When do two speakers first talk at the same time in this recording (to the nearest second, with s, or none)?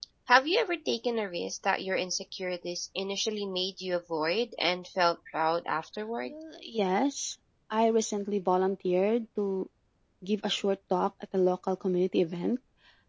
none